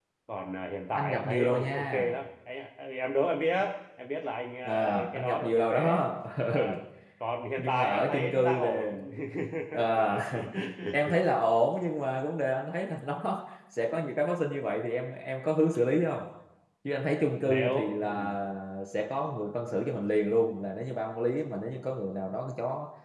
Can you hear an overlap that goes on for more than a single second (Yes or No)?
Yes